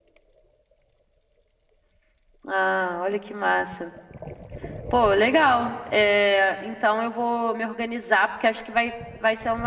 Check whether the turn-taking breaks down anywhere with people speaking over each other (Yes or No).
No